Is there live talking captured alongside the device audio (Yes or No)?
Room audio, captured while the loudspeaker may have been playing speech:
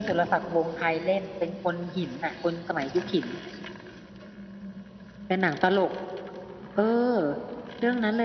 No